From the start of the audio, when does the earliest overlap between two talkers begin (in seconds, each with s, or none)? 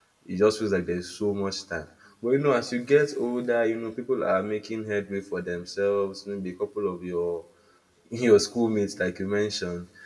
none